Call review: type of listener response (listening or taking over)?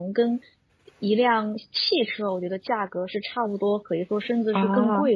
listening